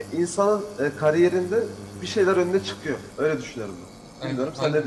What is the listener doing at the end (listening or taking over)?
taking over